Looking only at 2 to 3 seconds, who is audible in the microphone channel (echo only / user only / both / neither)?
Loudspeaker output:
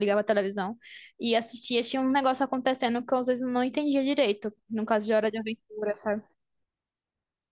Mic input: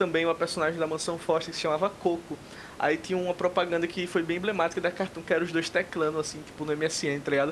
user only